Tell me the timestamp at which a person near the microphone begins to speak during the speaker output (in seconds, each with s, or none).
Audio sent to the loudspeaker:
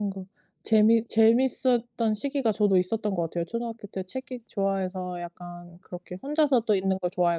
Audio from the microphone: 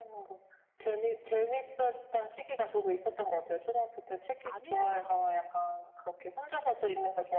4.4 s